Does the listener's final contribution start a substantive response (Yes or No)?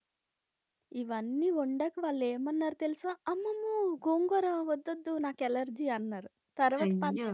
No